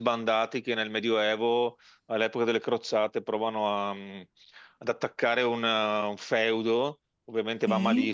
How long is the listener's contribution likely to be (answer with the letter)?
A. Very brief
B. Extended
A